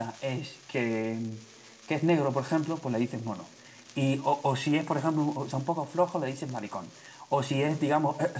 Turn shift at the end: No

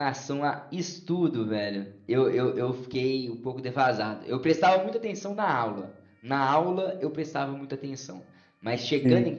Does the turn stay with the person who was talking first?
Yes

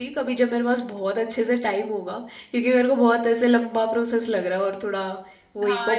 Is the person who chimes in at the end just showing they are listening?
No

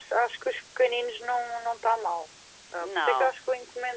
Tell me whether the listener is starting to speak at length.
No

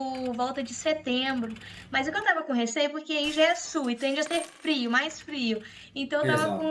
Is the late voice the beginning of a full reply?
No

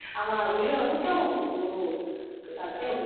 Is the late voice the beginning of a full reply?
No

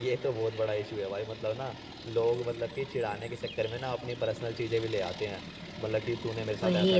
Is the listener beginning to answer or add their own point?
No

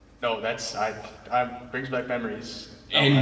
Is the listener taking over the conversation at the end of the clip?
Yes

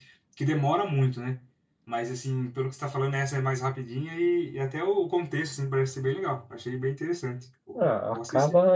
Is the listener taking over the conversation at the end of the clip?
Yes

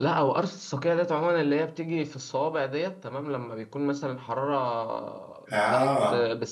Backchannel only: Yes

